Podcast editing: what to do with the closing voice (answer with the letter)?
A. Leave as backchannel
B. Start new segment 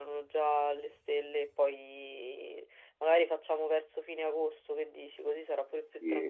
B